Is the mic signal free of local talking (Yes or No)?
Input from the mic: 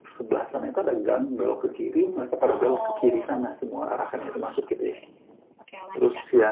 No